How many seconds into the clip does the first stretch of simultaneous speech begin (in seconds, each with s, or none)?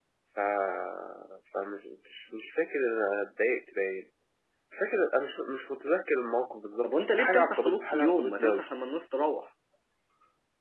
6.8 s